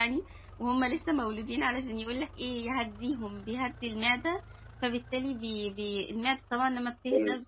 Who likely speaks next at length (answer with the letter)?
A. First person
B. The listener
A